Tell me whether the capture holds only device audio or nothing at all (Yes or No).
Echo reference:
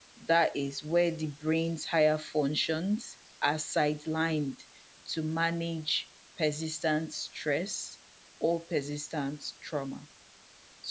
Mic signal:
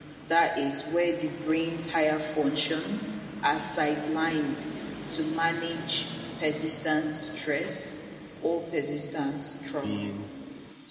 No